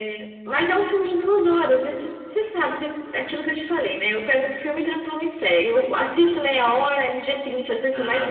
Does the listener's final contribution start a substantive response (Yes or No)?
Yes